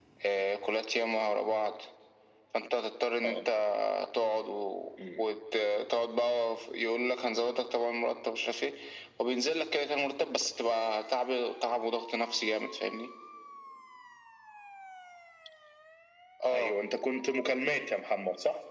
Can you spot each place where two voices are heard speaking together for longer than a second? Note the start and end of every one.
none

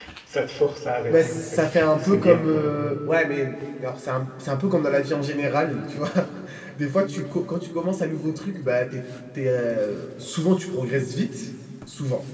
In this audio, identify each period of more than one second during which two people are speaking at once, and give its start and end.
1.1-2.5

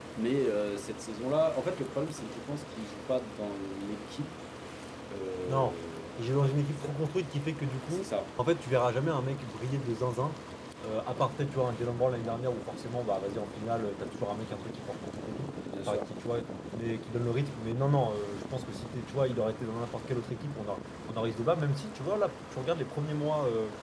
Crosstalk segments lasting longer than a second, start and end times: none

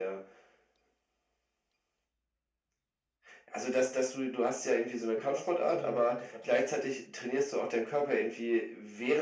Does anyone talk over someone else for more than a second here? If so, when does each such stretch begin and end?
5.2-6.6

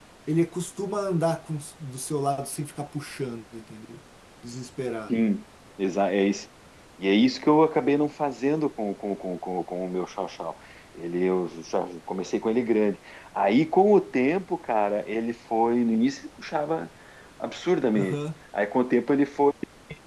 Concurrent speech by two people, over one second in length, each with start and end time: none

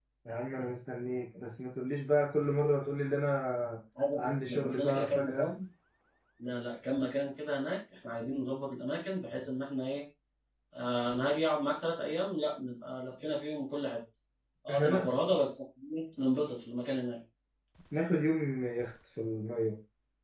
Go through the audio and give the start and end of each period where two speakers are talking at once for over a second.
4.2-5.5

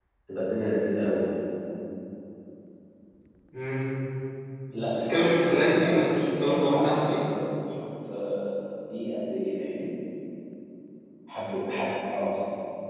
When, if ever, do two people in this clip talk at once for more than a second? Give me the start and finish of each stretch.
4.9-7.2

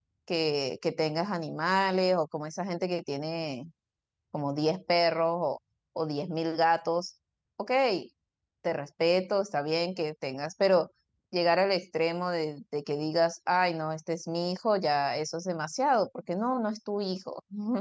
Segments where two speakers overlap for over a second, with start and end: none

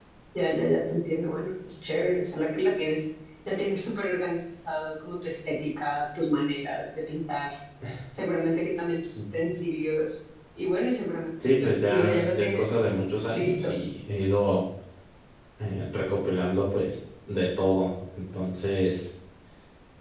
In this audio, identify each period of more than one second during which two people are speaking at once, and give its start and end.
11.4-12.8

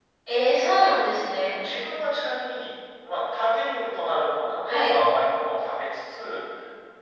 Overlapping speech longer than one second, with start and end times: none

